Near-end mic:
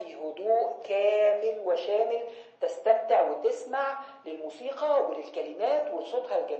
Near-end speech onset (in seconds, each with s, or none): none